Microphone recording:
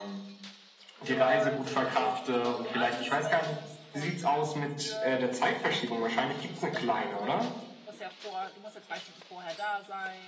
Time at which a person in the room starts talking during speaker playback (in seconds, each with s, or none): 1.0 s